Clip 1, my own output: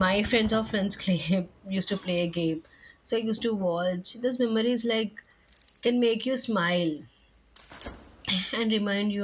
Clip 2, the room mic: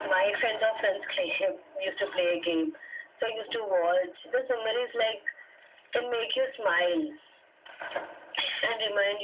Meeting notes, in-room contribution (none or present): none